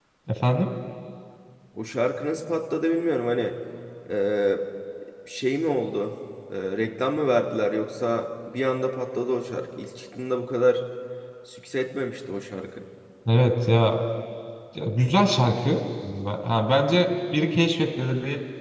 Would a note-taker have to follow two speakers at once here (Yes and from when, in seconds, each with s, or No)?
No